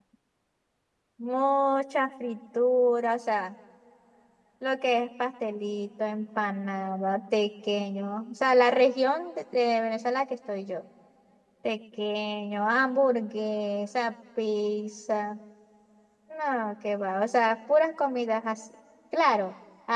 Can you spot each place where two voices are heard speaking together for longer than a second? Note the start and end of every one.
none

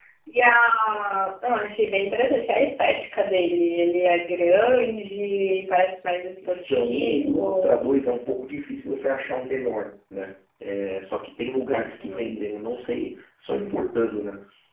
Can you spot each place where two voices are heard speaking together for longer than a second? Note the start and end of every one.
6.5-7.8

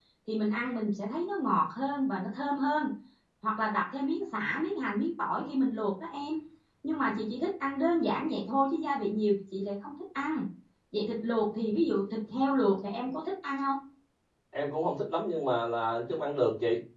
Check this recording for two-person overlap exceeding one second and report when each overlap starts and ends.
none

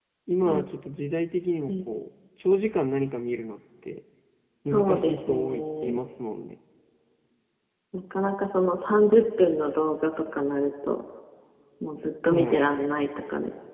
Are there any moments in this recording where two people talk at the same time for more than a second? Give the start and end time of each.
4.7-6.0

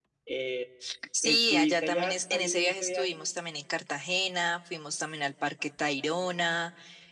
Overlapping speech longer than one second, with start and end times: 1.2-3.2

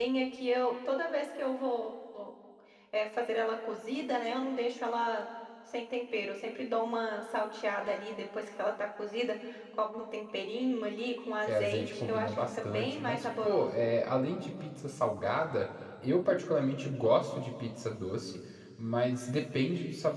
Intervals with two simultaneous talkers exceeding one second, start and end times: 11.5-13.7

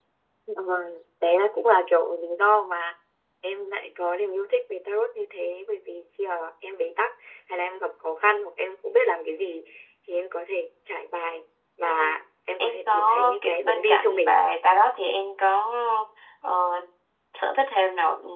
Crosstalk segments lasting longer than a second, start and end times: 12.6-14.4

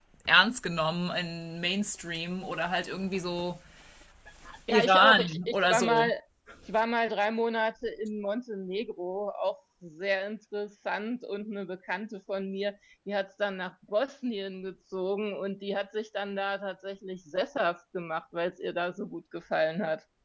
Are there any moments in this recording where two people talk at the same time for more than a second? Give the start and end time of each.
4.7-6.1

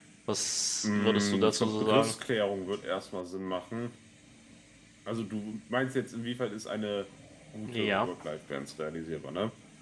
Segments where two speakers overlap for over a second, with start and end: 0.8-2.1

